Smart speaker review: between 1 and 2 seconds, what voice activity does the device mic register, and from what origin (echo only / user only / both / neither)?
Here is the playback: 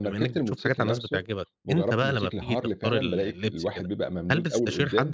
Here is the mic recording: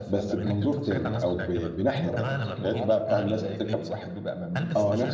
both